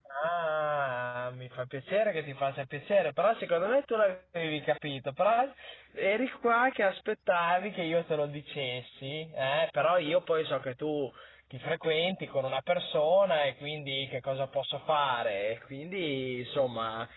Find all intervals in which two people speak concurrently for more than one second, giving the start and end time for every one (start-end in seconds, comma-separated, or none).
none